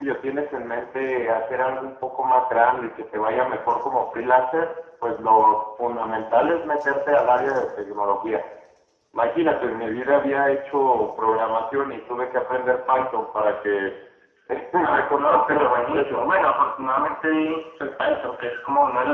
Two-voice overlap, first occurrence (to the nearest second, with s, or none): 15 s